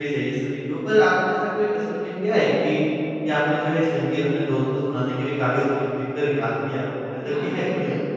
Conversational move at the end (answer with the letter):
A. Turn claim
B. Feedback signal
A